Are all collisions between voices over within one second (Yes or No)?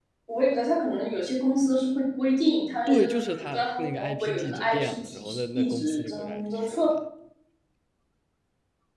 No